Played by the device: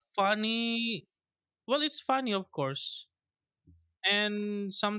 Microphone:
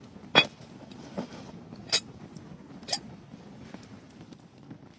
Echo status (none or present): none